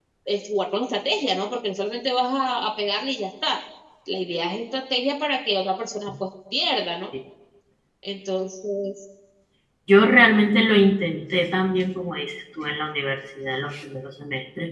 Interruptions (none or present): none